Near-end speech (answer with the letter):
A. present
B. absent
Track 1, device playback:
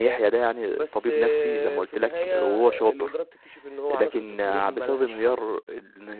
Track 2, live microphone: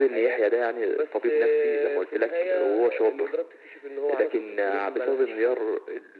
B